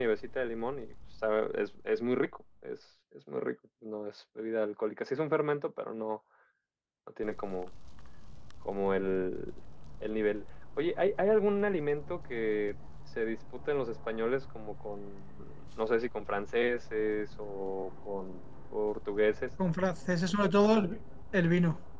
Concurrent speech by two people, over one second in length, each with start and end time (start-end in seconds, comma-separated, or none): none